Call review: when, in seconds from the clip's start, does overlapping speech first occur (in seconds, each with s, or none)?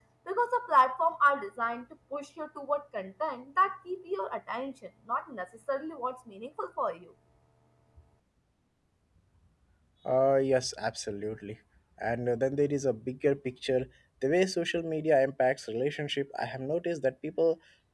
none